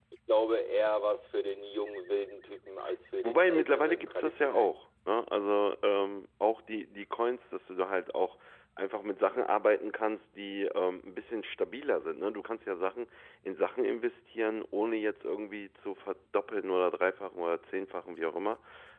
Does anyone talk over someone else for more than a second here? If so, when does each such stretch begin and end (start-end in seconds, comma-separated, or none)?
3.2-4.8